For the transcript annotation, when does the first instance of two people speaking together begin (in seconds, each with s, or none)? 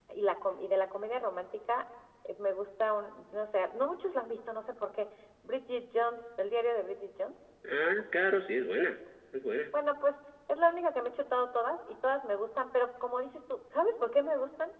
none